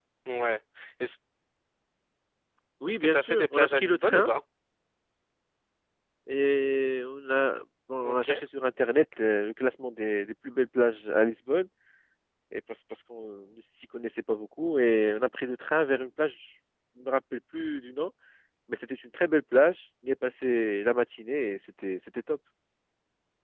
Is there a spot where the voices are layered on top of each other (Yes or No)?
Yes